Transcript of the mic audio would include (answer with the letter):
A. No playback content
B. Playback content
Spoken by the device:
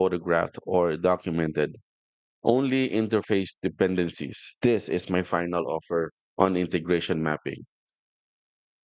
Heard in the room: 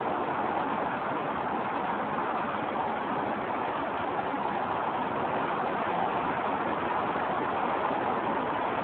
A